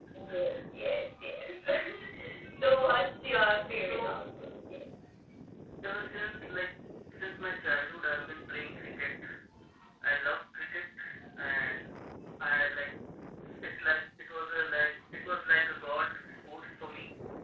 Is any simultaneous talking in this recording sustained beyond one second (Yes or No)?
No